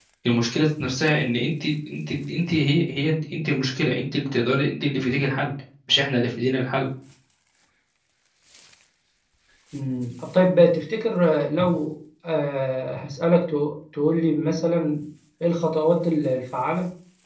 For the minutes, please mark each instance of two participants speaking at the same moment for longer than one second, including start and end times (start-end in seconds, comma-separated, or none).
none